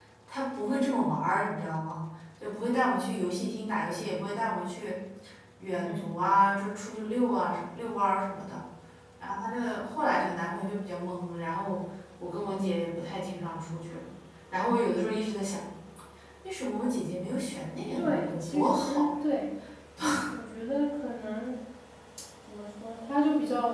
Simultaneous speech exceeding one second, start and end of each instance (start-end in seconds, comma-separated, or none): 17.9-19.2